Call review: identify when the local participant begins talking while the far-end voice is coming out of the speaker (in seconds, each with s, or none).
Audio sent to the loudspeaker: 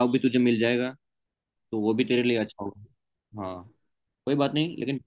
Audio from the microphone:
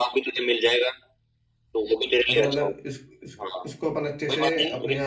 2.3 s